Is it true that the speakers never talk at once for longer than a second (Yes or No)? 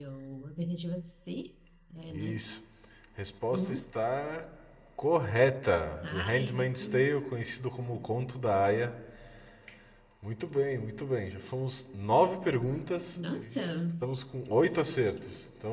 No